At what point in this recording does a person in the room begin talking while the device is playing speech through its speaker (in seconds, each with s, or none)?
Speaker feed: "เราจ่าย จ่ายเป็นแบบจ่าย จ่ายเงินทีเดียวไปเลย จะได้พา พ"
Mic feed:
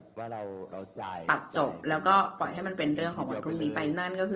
1.3 s